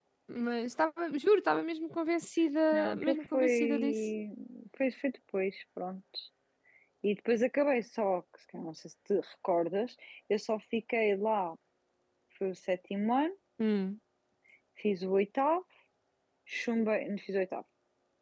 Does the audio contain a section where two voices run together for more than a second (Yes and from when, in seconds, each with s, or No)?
Yes, from 2.7 s